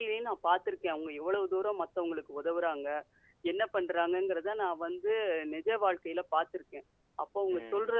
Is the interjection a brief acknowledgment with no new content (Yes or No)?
Yes